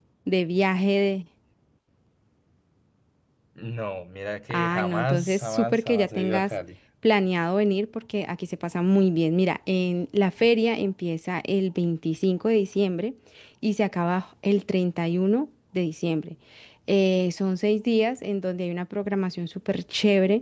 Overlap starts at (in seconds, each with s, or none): 4.5 s